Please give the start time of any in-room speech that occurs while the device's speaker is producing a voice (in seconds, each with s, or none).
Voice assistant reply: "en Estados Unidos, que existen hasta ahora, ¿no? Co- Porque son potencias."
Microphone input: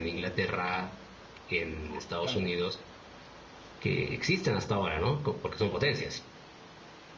2.2 s